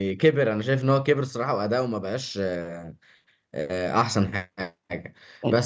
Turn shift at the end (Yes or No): No